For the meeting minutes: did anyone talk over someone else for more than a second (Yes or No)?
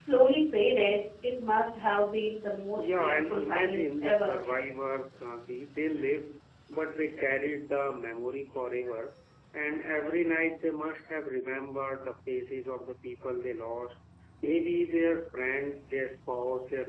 Yes